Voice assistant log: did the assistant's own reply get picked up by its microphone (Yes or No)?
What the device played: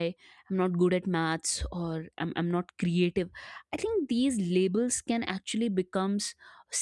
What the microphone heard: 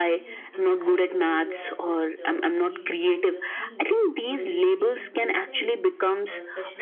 Yes